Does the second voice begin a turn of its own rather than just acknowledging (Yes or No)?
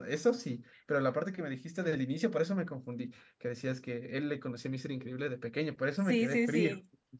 Yes